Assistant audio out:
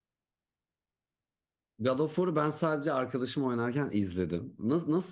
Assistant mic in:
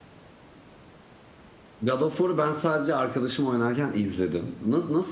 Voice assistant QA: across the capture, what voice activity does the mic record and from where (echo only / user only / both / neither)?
echo only